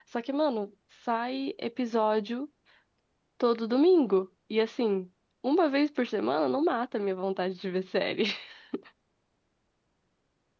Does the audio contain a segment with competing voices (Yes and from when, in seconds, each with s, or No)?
No